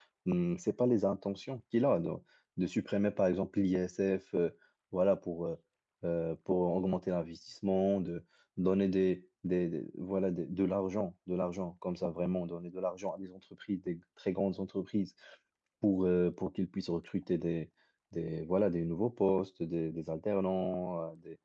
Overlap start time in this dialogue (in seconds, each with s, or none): none